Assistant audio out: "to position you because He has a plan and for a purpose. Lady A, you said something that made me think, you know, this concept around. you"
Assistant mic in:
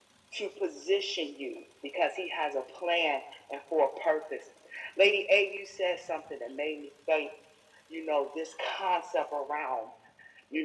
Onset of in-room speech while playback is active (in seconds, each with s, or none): none